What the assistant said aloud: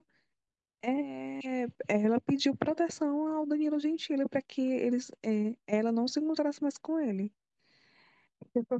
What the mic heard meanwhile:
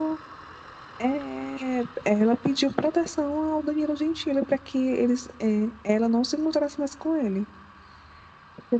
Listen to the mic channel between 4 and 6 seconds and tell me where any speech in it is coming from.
echo only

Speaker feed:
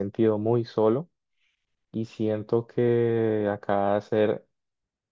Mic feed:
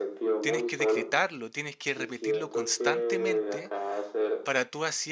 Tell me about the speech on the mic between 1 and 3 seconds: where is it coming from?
both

